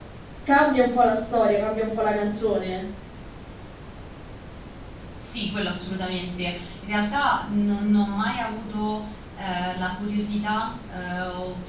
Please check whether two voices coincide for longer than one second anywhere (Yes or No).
No